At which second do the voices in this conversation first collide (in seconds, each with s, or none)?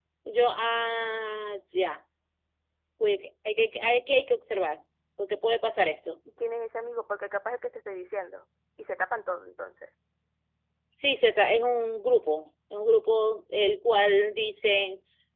none